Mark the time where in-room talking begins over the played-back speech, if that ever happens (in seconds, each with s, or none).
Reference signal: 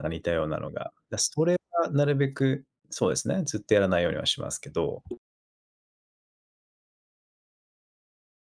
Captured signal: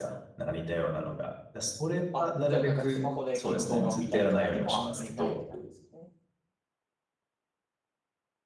2.1 s